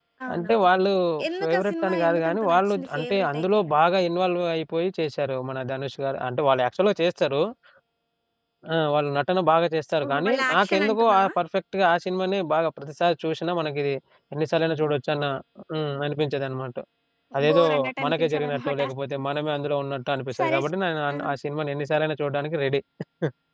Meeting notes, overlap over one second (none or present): present